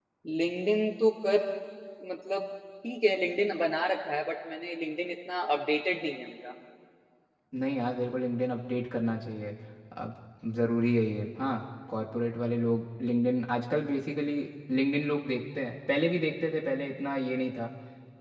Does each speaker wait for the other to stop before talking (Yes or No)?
Yes